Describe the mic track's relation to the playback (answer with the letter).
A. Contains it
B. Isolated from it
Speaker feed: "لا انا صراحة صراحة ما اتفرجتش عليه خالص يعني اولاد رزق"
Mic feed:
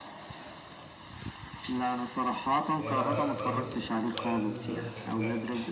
A